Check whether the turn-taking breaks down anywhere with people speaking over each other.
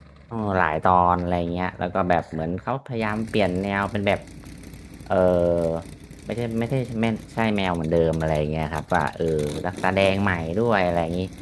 No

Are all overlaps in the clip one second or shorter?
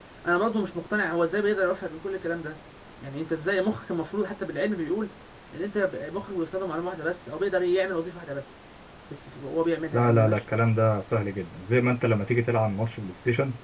Yes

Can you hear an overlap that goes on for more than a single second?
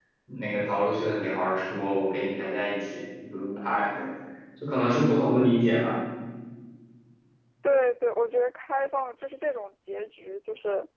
No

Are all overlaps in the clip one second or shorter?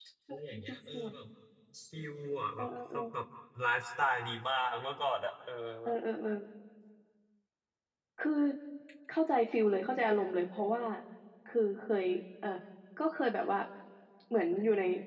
Yes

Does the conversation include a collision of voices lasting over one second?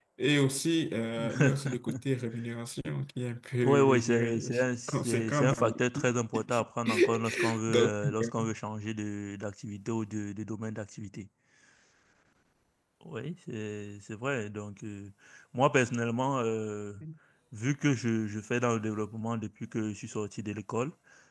Yes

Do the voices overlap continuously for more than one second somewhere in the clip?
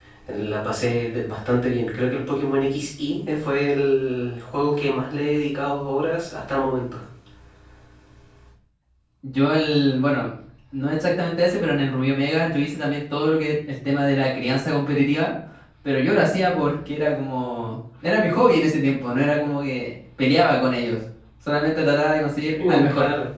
No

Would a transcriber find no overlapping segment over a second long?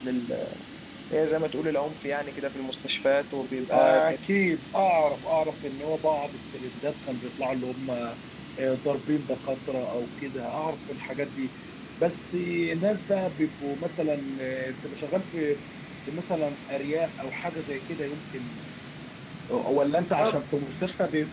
Yes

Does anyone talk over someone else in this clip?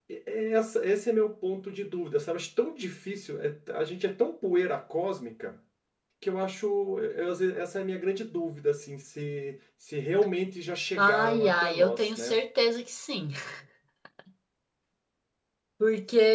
Yes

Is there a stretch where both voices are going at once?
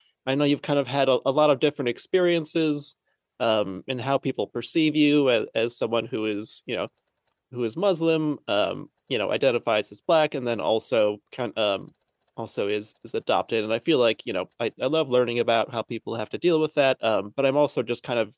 No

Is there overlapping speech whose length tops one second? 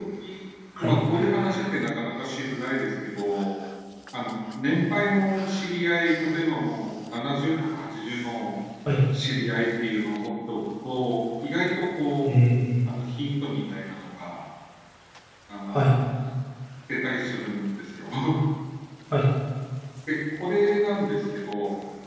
No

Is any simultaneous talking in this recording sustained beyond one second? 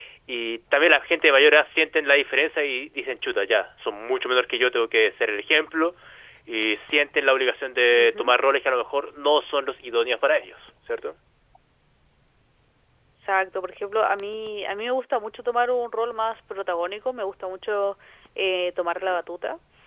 No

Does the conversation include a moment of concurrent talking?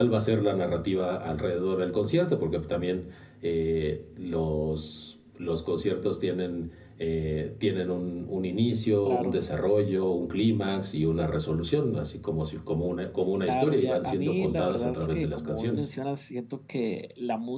Yes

